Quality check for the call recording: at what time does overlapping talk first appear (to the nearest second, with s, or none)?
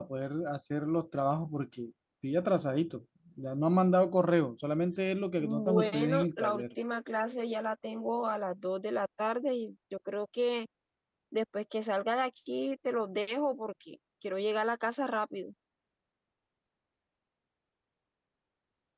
5 s